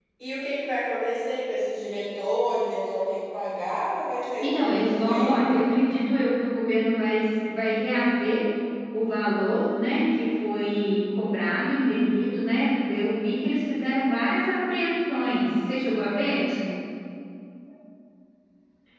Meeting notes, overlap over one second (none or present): present